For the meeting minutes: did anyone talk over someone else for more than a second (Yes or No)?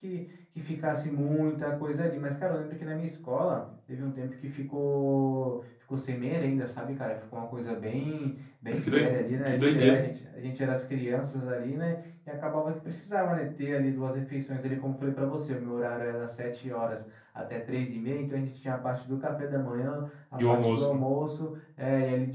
Yes